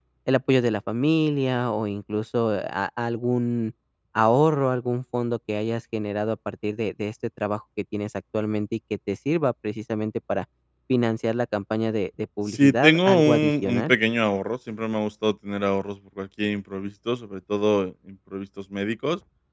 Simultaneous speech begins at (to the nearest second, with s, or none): 12 s